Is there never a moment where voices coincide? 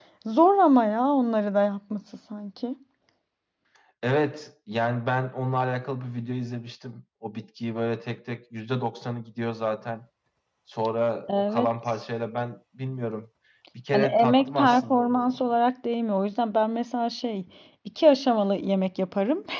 No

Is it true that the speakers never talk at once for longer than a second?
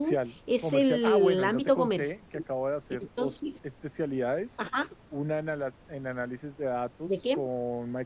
No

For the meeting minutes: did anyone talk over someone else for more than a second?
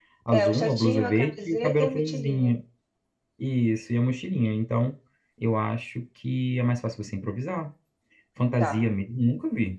Yes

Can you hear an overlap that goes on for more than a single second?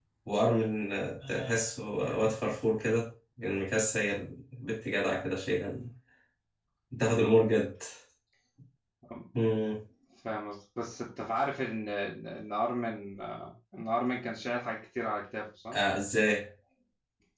No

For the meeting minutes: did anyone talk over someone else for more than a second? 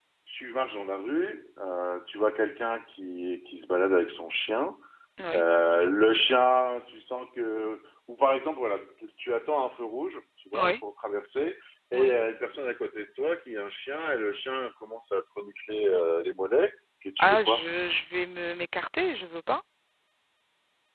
No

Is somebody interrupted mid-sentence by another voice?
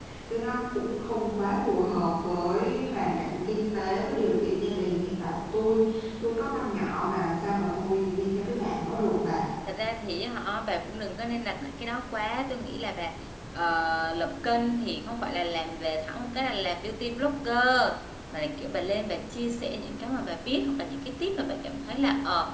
No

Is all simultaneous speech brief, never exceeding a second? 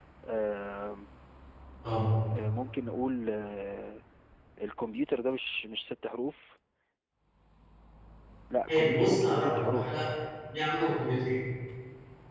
No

